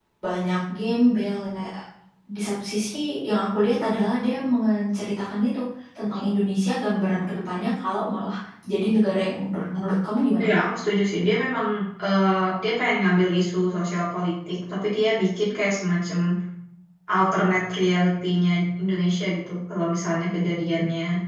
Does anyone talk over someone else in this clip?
No

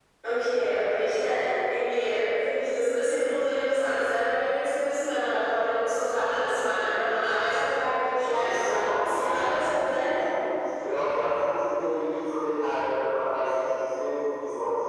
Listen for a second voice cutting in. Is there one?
Yes, from 8.2 s

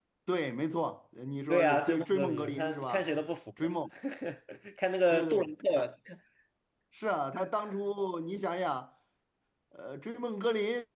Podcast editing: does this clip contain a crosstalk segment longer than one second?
Yes, from 1.5 s

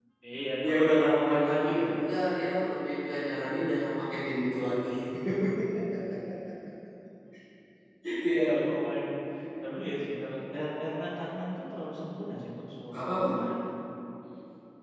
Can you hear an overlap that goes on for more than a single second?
Yes, from 0.7 s

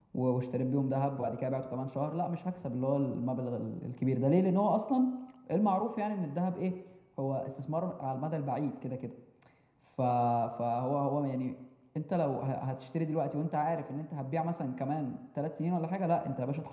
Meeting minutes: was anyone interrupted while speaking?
No

